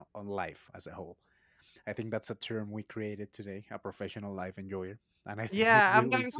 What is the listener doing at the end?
taking over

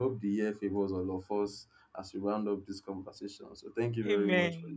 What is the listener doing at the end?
taking over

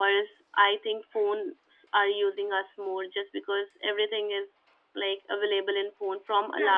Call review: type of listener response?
taking over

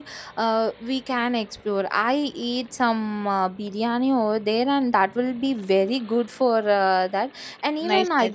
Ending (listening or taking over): taking over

